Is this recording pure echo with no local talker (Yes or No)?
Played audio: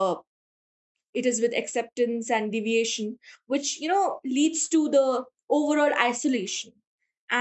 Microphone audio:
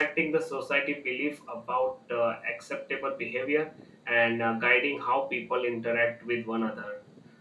No